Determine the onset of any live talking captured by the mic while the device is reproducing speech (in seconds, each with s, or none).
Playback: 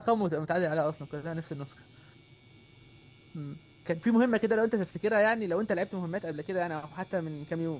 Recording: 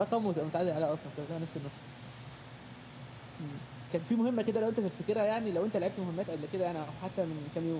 none